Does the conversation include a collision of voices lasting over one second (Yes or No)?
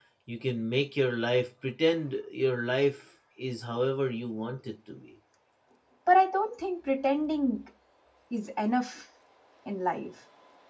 No